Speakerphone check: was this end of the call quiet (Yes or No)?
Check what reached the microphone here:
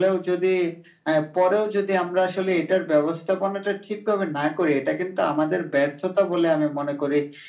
Yes